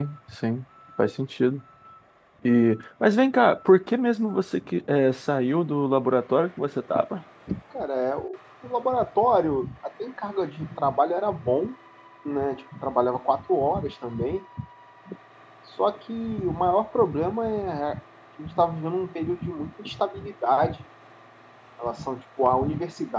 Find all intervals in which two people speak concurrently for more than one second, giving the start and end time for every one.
none

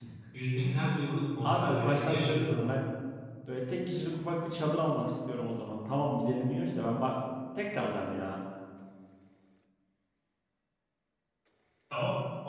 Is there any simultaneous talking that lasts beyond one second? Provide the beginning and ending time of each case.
1.4-2.7

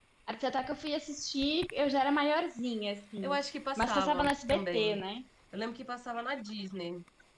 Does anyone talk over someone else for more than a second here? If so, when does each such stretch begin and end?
3.8-5.0

